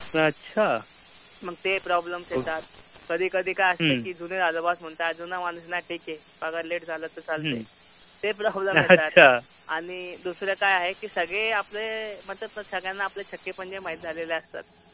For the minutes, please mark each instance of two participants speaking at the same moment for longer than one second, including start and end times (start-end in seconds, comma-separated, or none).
none